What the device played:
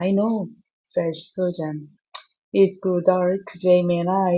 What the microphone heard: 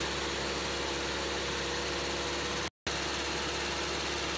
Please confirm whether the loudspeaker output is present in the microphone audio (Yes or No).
No